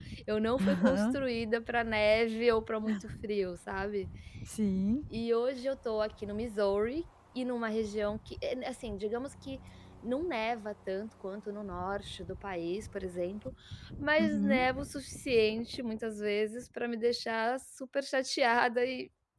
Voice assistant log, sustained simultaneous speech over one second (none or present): none